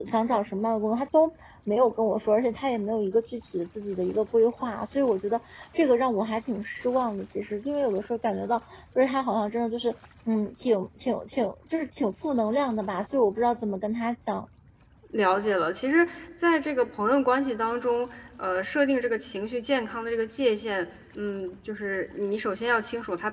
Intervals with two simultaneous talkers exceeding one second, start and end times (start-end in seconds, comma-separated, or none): none